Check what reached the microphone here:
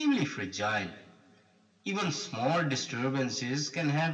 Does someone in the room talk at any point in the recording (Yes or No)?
No